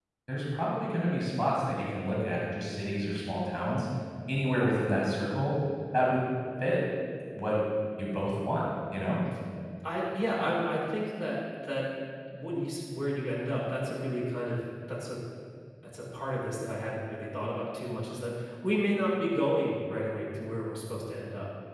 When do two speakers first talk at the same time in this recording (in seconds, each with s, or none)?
none